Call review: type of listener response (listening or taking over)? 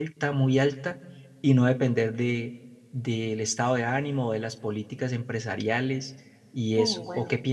taking over